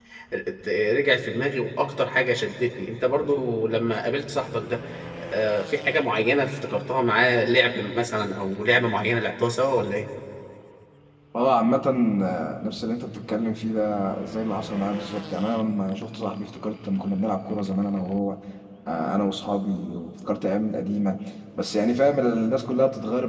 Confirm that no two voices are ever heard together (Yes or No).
Yes